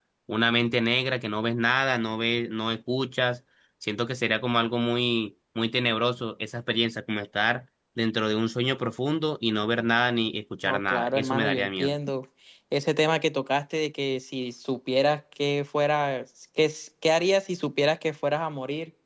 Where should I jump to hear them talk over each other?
10.6 s

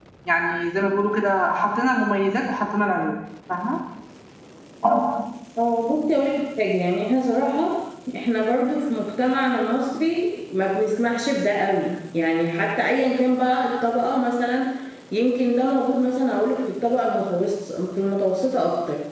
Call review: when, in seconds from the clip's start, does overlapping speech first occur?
none

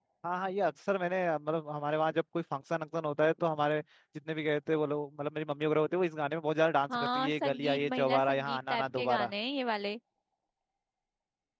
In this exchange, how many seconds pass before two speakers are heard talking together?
6.9 s

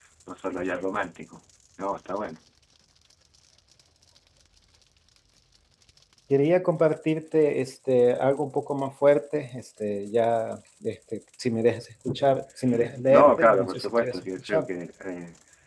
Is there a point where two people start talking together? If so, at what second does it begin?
13.1 s

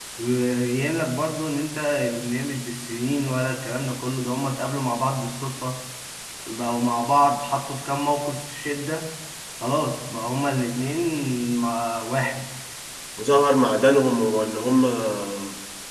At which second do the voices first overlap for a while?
none

